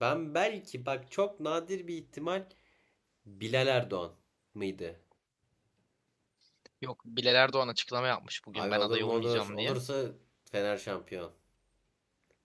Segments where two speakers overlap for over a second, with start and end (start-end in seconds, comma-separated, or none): 8.5-9.8